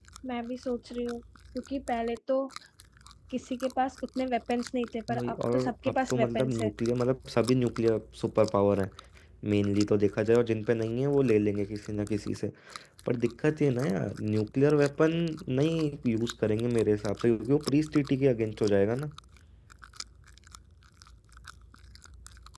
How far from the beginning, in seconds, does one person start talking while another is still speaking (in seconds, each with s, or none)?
5.1 s